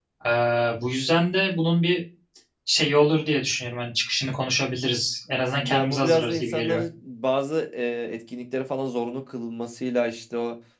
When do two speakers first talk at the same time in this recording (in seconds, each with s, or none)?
5.6 s